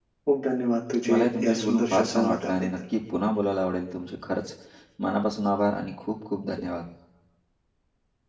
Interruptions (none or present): present